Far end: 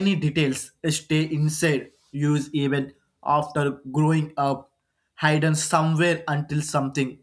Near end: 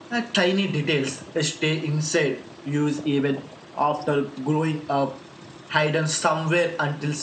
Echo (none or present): present